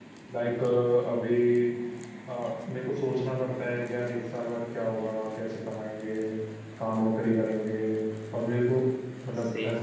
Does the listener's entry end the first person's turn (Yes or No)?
Yes